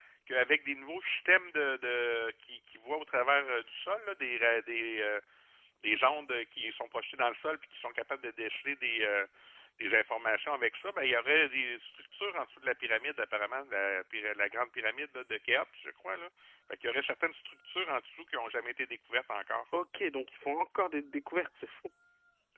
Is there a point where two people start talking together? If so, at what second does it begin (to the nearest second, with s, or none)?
none